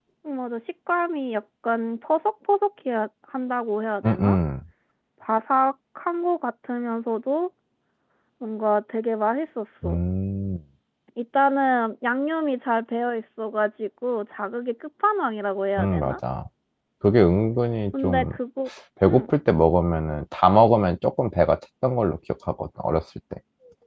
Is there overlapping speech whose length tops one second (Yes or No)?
No